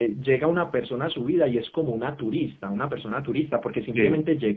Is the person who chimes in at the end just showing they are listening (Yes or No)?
Yes